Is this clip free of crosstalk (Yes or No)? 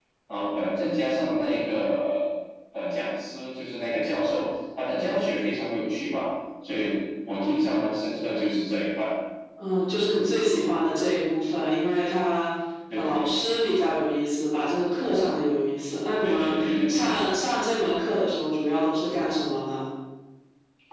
No